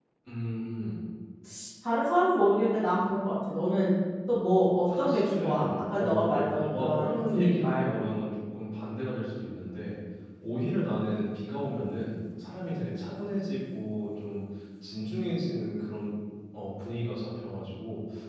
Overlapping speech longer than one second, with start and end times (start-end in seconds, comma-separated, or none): 5.0-8.1